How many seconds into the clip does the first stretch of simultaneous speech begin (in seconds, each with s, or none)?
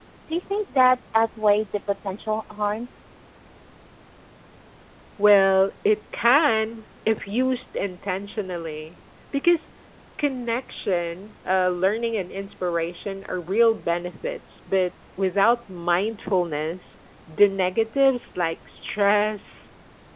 none